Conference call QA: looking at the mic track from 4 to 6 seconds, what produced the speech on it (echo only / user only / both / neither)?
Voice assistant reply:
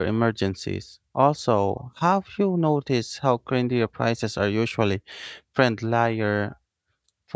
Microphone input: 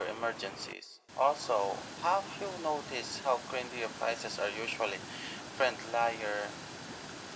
echo only